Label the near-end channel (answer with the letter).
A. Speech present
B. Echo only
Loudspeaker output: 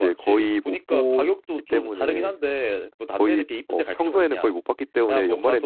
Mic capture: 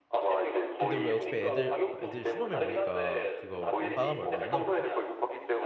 A